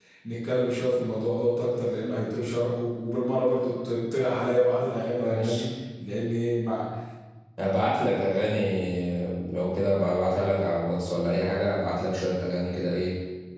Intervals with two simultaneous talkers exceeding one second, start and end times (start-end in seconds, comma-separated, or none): none